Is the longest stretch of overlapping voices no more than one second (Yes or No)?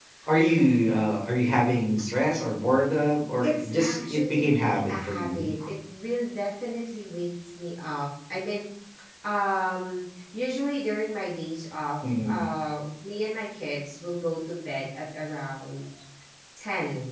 No